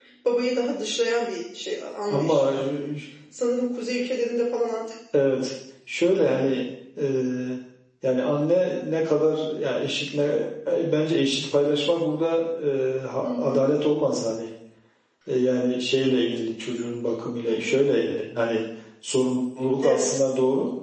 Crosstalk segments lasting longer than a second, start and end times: none

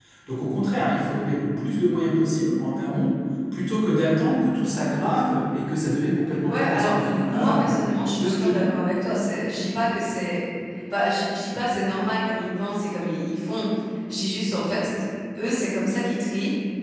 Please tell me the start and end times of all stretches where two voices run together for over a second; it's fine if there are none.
6.5-7.8

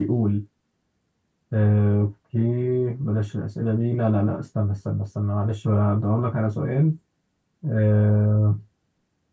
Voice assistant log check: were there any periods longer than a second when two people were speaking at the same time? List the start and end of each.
none

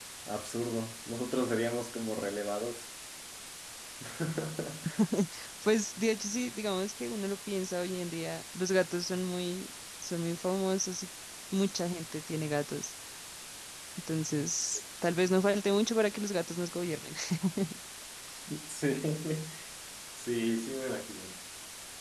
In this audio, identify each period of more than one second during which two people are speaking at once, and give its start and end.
none

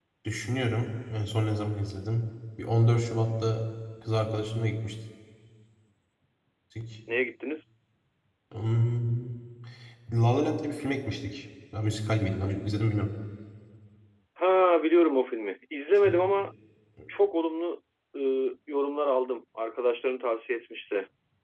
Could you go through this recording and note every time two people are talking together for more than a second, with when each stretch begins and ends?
none

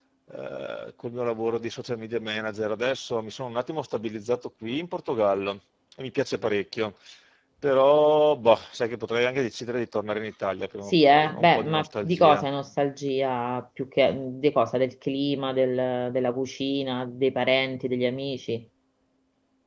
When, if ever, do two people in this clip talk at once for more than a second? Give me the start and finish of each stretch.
11.1-12.4

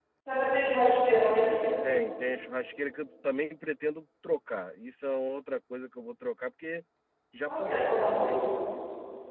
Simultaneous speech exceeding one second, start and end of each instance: none

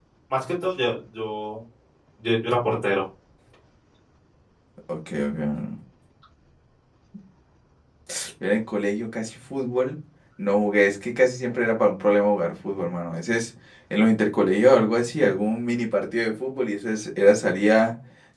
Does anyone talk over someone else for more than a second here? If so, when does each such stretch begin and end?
none

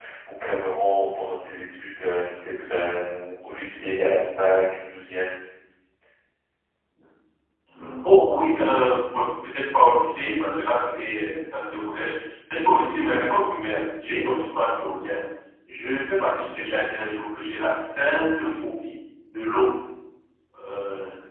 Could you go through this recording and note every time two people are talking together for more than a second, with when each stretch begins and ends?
none

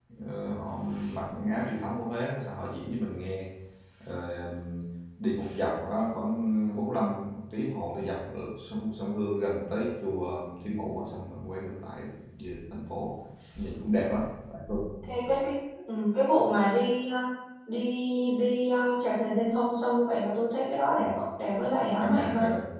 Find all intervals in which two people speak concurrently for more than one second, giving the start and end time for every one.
none

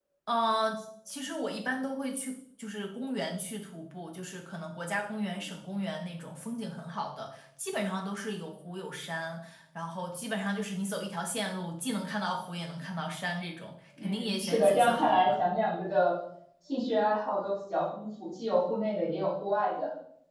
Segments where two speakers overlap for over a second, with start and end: 14.0-15.3

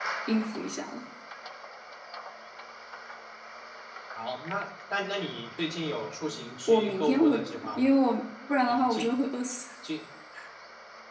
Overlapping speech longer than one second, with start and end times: 6.7-7.9

